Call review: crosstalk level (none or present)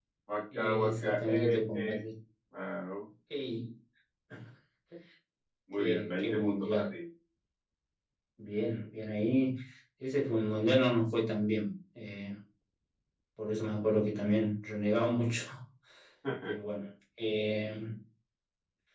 present